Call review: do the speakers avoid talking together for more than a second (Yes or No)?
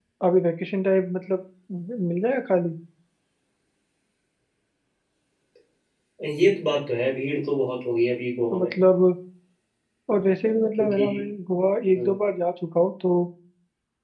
Yes